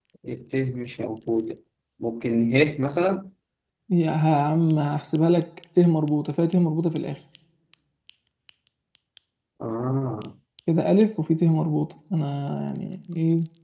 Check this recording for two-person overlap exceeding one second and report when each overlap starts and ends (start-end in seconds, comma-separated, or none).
none